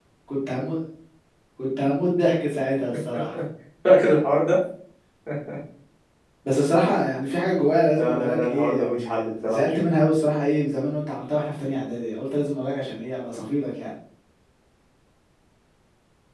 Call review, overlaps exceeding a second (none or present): present